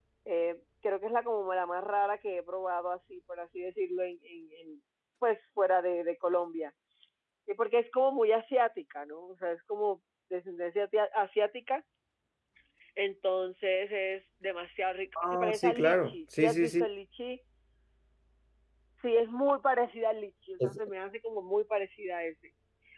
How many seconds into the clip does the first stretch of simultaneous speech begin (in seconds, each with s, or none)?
15.2 s